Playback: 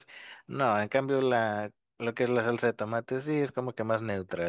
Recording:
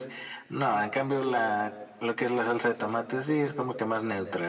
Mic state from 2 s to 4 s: echo only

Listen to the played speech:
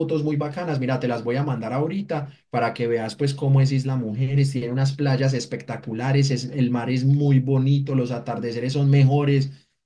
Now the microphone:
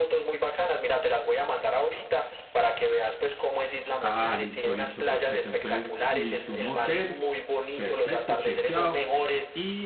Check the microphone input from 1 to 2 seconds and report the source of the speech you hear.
echo only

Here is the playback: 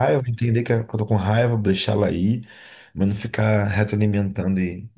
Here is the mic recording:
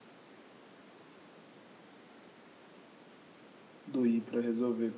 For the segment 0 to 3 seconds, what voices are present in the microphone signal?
neither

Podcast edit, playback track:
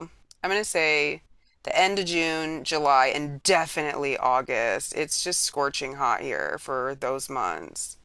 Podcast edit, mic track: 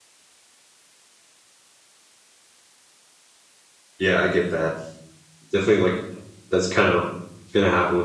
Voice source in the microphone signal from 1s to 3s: neither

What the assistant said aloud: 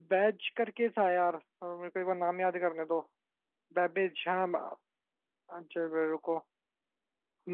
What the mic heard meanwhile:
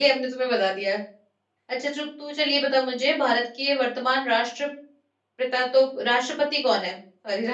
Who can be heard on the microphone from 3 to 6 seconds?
user only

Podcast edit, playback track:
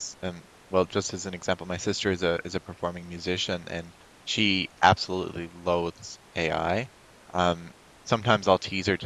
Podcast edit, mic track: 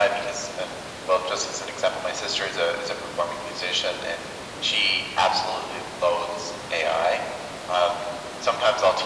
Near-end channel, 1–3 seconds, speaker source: echo only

